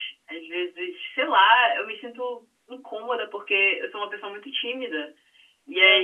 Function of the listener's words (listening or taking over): listening